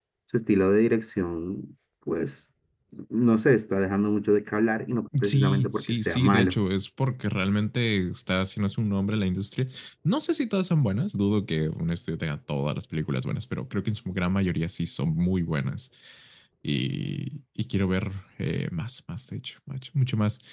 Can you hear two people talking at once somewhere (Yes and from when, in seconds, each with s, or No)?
Yes, from 5.1 s